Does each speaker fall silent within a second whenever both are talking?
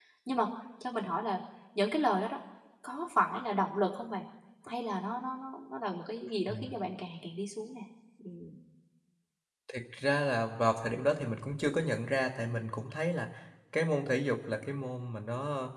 Yes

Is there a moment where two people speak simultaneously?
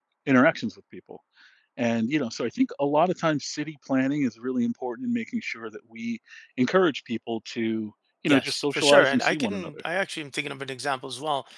Yes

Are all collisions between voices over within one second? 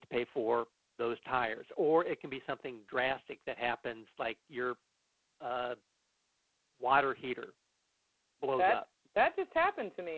Yes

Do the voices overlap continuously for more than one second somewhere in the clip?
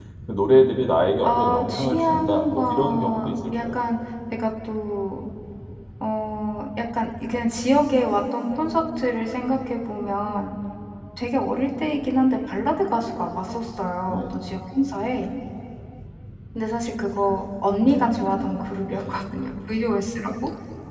Yes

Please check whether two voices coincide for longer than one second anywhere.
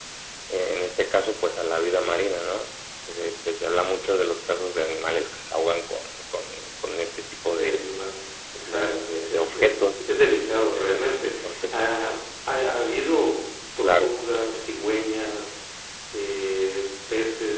Yes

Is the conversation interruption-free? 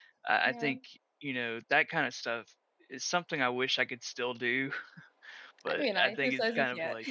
No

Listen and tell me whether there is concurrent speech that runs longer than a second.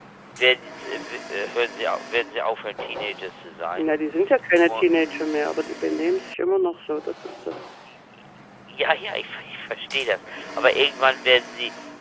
No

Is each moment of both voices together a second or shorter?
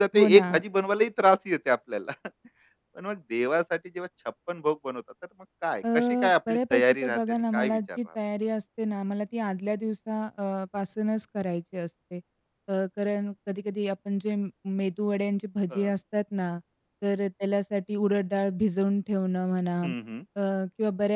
No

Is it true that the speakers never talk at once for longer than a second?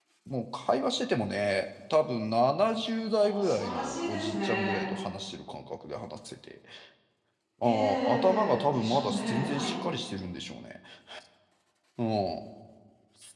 No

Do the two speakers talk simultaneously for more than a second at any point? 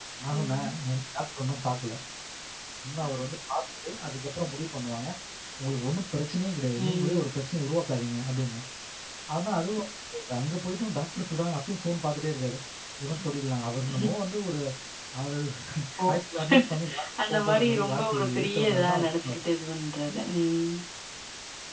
Yes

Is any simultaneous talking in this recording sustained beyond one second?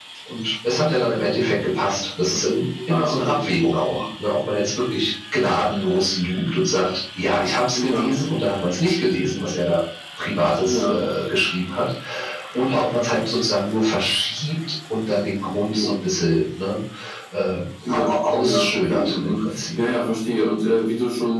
Yes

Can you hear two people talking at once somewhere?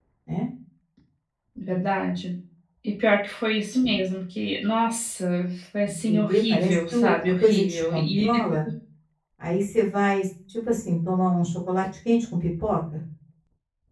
Yes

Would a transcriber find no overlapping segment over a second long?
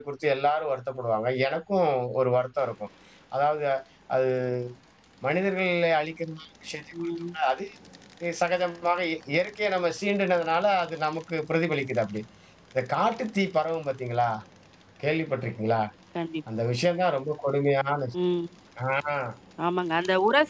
Yes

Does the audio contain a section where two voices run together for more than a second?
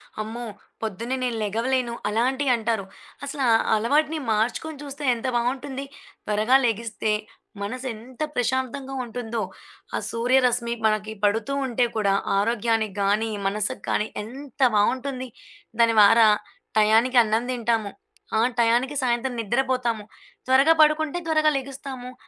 No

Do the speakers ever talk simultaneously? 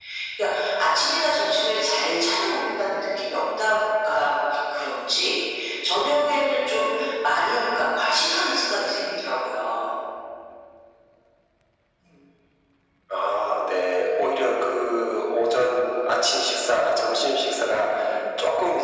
No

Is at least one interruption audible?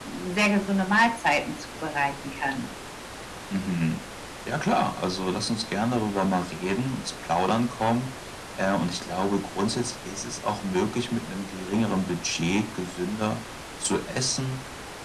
No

